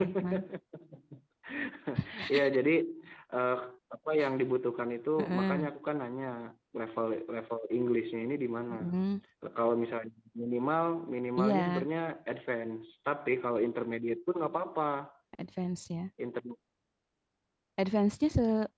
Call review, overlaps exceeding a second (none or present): none